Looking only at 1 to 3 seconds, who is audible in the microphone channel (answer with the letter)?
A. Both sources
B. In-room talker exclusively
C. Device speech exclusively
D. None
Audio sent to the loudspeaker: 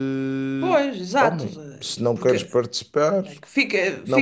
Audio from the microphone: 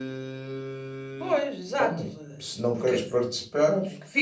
C